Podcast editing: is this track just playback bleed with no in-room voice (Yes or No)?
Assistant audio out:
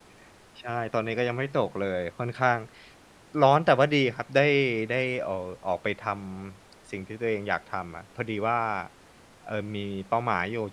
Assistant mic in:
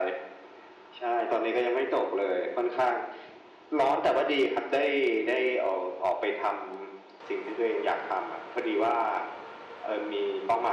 Yes